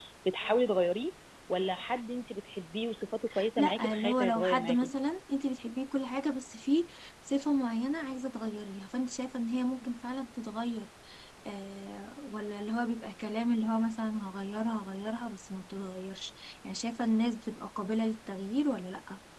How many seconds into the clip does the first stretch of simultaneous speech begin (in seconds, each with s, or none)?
3.6 s